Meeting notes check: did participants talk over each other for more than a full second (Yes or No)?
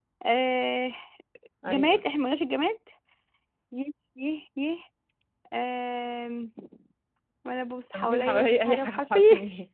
Yes